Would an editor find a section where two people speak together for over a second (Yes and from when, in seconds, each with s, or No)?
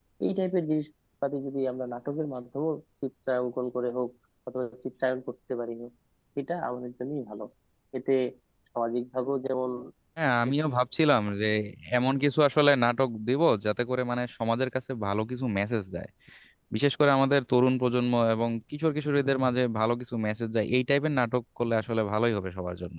No